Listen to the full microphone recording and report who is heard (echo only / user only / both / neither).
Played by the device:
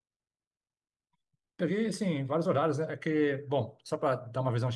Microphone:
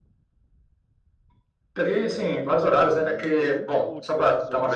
both